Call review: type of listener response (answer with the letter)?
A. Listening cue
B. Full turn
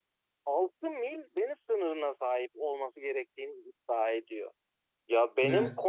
A